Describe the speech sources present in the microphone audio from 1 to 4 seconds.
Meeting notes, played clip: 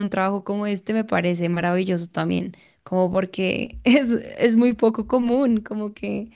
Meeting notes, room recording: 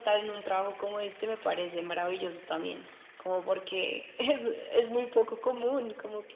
echo only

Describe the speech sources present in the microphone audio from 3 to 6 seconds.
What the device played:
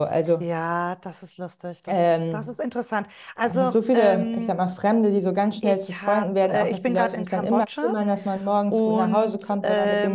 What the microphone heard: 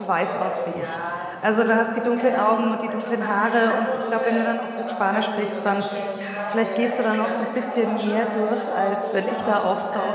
both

